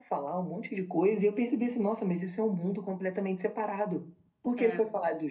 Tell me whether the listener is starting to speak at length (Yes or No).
No